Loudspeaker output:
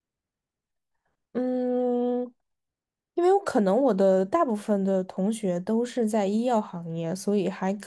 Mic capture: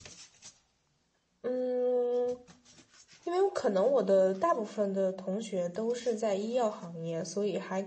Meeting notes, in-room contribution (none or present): none